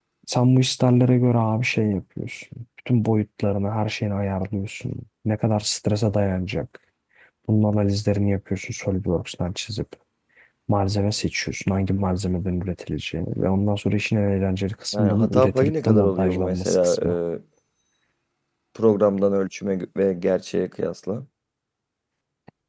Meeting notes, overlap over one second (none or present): present